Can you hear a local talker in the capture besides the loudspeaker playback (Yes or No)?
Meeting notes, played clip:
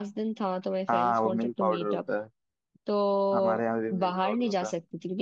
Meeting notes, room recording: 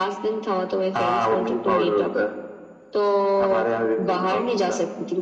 Yes